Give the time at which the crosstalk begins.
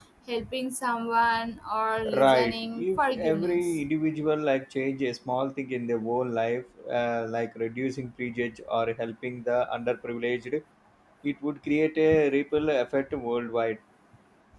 2 s

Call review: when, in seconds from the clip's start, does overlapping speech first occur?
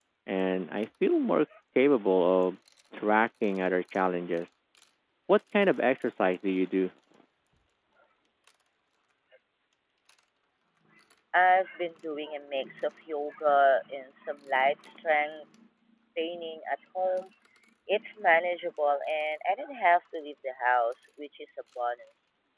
none

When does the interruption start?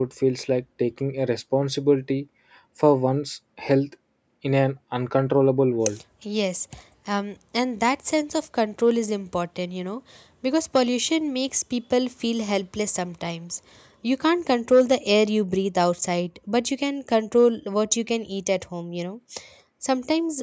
none

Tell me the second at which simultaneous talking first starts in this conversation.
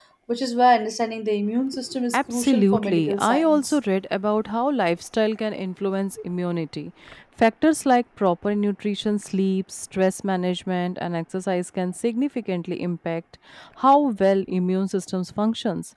2 s

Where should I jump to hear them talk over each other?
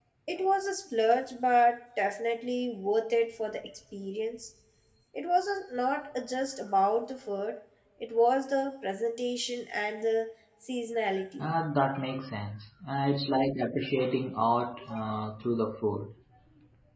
none

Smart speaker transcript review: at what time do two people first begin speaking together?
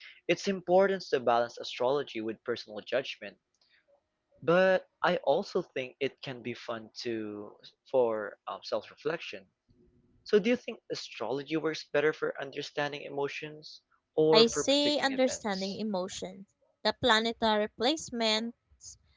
14 s

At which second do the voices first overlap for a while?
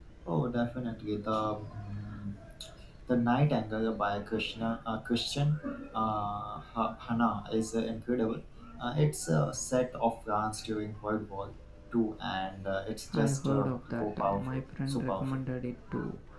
13 s

